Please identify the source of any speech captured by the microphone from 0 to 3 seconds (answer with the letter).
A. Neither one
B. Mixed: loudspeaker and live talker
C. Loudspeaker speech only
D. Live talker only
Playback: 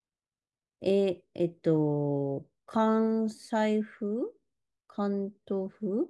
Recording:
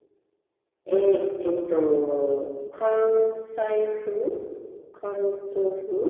C